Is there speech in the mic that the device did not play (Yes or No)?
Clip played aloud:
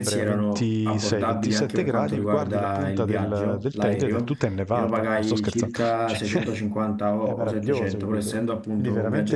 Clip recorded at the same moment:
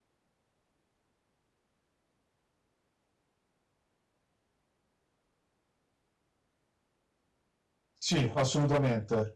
Yes